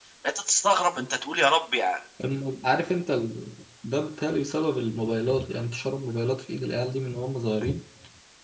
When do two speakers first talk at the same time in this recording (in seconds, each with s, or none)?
none